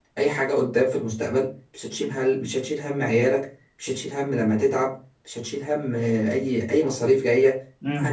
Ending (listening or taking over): taking over